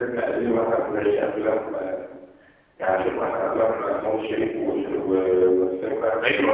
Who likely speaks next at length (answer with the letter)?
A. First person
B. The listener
A